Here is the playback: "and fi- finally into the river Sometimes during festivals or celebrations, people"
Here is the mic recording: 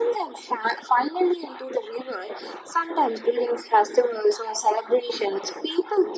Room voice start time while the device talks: none

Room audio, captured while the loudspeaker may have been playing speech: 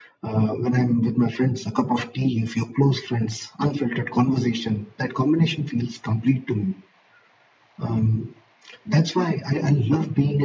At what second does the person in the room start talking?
none

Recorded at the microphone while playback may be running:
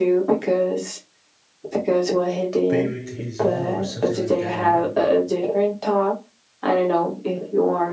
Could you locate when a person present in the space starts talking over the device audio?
2.7 s

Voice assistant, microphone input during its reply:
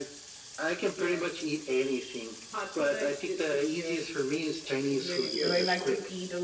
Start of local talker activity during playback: 5.4 s

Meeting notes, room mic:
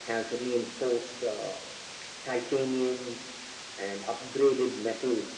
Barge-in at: none

